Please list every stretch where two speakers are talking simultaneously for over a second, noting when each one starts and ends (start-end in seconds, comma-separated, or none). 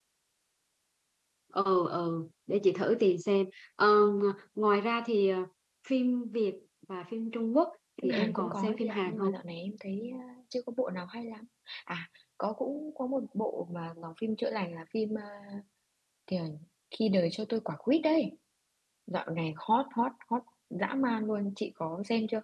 8.0-9.3